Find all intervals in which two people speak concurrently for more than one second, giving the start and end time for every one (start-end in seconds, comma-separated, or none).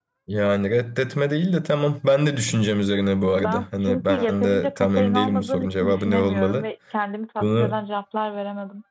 3.4-6.7